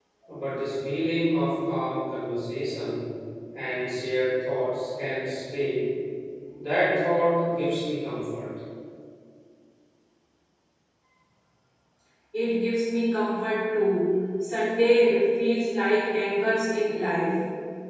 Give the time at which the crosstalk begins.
none

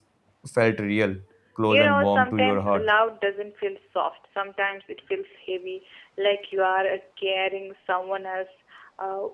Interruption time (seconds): 1.7 s

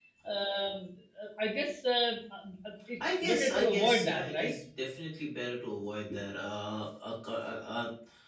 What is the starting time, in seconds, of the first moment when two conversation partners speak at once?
3.0 s

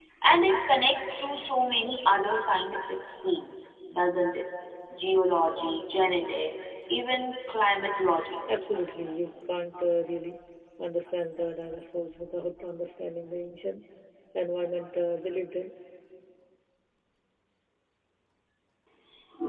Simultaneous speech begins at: none

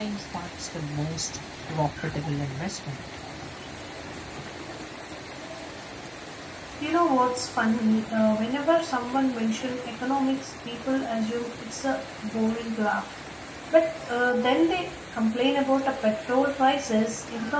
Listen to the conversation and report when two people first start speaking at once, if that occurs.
none

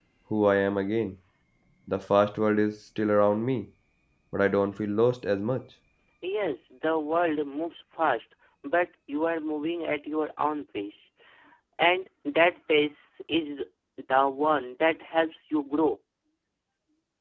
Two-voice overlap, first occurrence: none

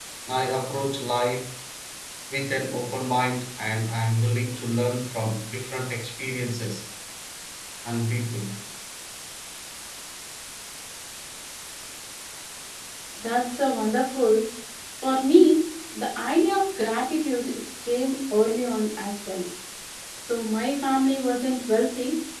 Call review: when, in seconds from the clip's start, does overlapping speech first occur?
none

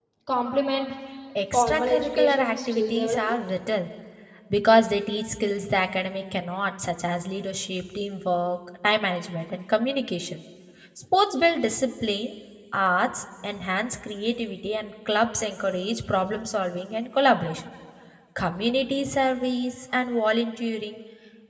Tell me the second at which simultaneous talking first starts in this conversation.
1.5 s

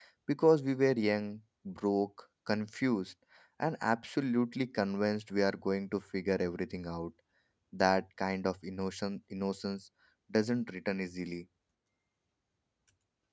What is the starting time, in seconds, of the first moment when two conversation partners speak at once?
none

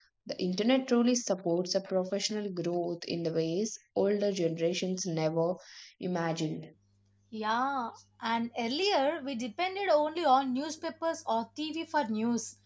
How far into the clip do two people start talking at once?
none

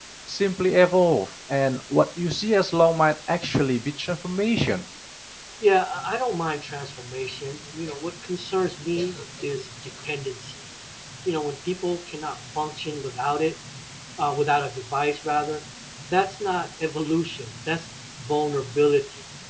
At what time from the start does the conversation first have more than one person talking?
none

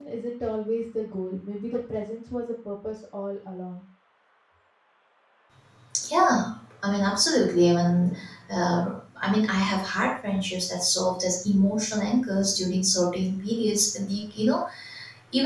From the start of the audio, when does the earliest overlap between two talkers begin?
none

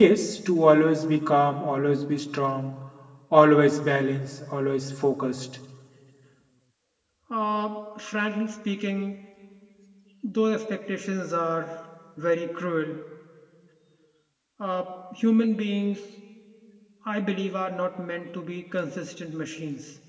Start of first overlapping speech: none

